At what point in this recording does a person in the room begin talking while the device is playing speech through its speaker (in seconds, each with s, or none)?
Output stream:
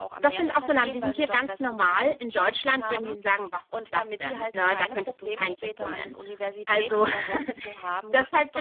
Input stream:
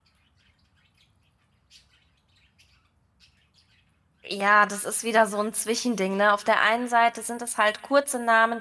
4.2 s